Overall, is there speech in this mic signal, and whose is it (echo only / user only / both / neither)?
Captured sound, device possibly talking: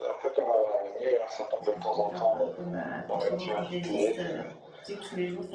both